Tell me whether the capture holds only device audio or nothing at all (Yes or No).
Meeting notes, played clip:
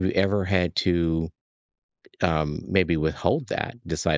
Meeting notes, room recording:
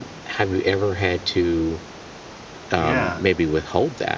No